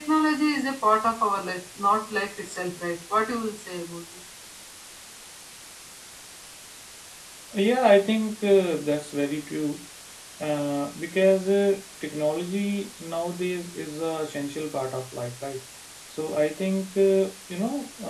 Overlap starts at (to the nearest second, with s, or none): none